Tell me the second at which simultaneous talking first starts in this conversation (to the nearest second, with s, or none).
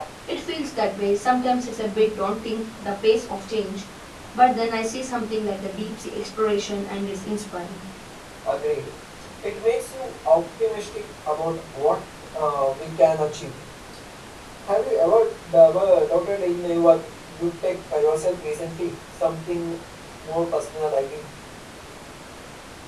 none